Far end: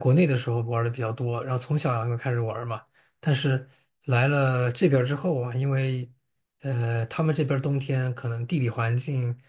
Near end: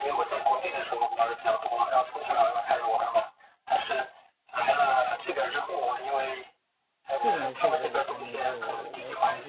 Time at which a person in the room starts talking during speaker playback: 7.2 s

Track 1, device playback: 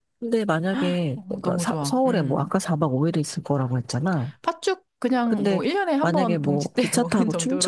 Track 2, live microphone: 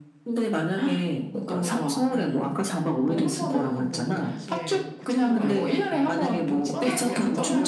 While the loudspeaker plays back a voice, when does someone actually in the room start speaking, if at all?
3.1 s

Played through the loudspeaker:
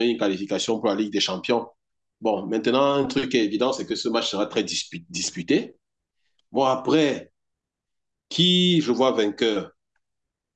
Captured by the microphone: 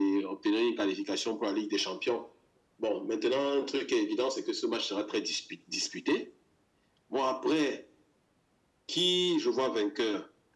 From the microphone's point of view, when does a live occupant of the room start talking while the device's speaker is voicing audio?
none

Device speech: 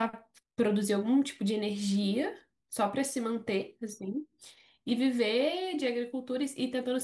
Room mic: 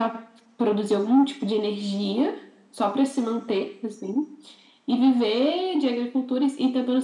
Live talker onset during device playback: none

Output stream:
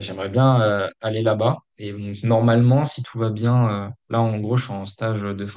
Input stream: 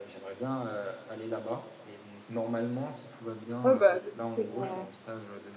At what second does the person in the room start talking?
3.6 s

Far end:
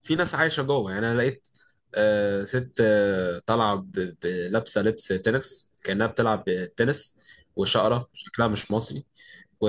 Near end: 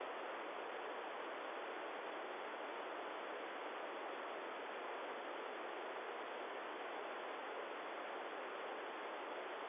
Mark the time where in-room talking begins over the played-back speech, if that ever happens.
none

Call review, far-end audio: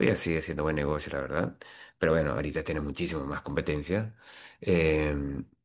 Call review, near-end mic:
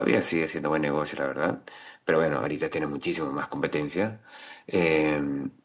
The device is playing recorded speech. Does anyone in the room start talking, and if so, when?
none

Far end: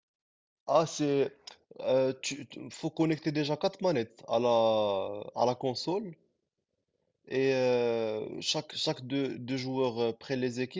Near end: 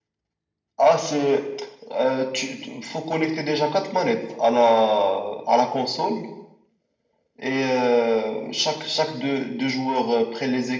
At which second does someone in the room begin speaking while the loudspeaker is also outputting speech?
none

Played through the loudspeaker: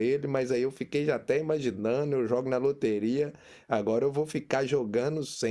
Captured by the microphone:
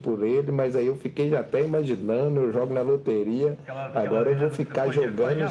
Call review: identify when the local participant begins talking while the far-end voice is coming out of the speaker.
3.6 s

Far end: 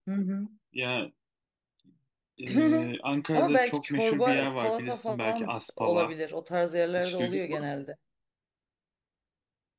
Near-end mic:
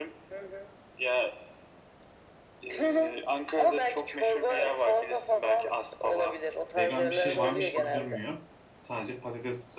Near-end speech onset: 6.8 s

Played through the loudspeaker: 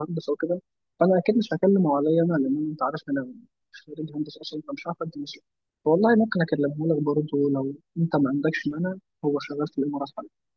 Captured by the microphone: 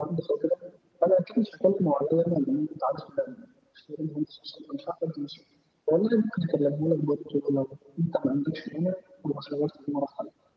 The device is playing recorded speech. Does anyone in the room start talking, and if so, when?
none

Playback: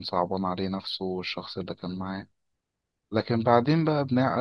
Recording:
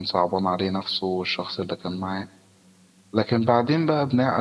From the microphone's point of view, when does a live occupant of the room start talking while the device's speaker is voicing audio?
none

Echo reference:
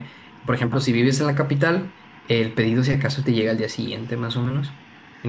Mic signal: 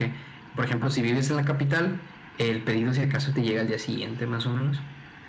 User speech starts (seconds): none

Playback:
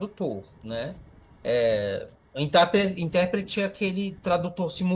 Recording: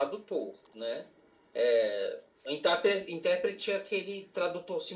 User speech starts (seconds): none

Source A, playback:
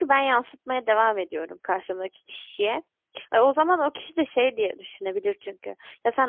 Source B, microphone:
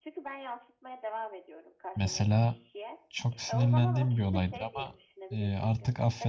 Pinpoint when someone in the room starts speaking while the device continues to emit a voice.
1.9 s

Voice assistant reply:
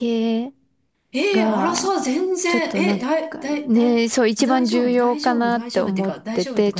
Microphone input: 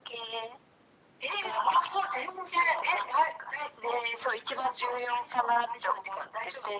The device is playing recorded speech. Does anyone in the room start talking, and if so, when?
none

